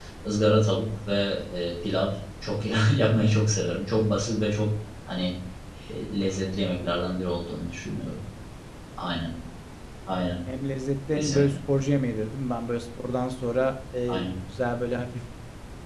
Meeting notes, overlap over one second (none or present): none